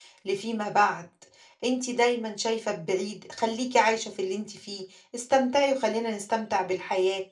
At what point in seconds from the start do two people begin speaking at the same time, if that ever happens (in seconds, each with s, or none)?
none